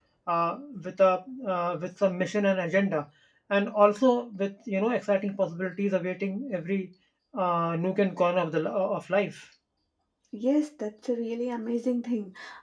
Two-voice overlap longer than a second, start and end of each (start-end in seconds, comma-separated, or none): none